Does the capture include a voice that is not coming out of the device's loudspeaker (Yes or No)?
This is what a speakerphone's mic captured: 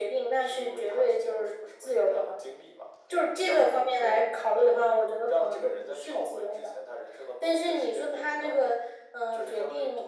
No